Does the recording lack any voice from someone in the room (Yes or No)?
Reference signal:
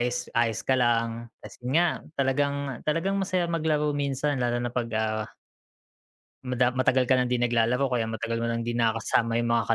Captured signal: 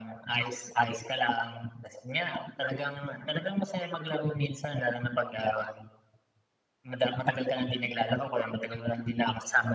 Yes